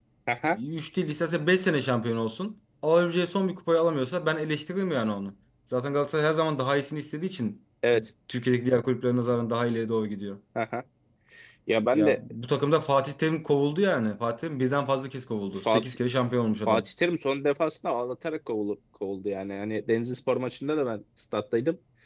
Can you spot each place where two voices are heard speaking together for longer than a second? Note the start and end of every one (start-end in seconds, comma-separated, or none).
none